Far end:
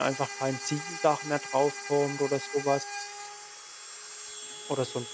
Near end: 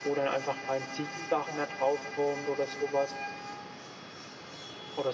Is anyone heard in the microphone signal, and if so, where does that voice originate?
echo only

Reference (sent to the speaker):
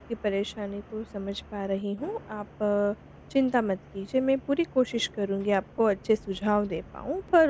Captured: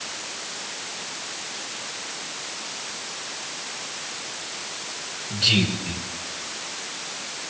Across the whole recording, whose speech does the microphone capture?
user only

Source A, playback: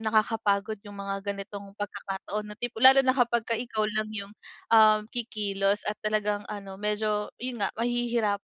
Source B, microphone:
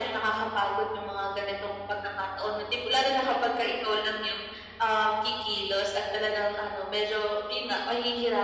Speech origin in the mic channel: echo only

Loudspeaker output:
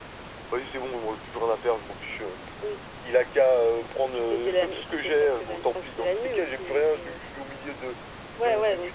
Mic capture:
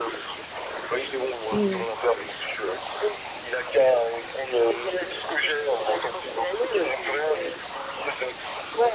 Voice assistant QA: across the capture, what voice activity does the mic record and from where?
both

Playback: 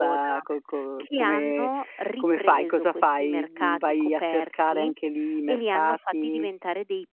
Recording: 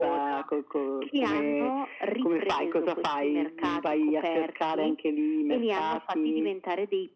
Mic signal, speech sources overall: echo only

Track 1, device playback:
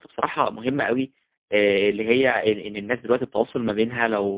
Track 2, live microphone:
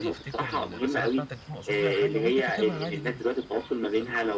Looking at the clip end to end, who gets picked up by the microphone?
both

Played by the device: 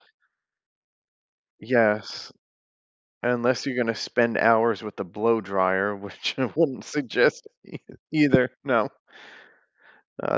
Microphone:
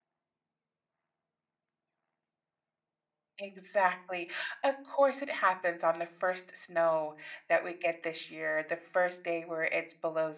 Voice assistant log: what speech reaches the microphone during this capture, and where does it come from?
user only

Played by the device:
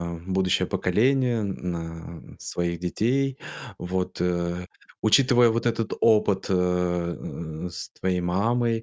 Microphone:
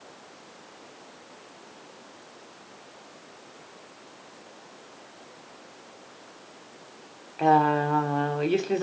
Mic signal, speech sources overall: user only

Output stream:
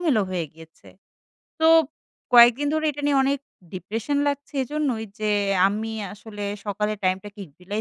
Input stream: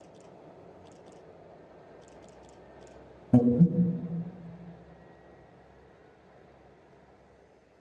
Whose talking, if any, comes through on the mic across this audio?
user only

